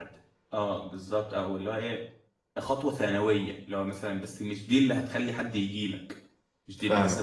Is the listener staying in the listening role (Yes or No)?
Yes